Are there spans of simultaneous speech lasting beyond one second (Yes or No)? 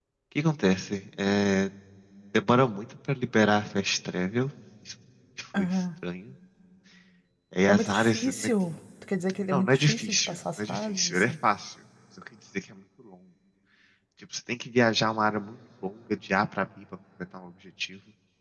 Yes